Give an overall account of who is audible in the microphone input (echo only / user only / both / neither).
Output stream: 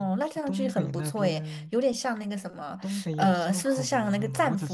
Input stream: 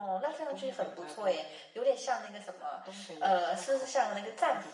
echo only